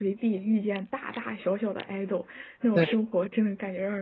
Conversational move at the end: listening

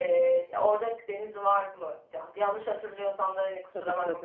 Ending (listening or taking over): taking over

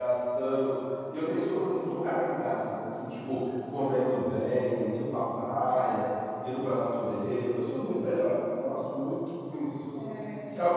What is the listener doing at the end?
listening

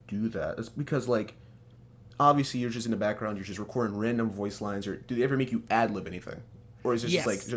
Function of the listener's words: taking over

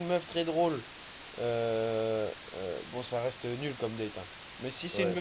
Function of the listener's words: listening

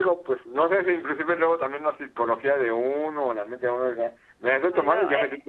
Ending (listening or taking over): listening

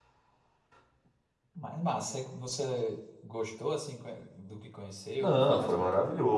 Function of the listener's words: taking over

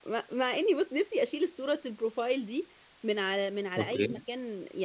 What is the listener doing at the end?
listening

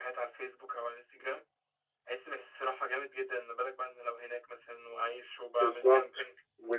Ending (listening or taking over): taking over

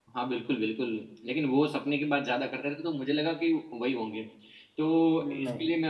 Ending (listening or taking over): listening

